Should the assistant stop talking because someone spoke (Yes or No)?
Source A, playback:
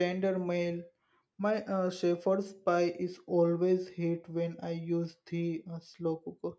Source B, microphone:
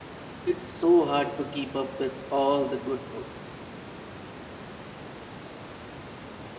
Yes